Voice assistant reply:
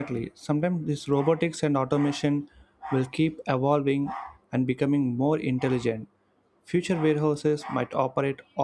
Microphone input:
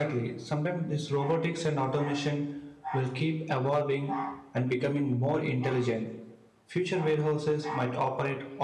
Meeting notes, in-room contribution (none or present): none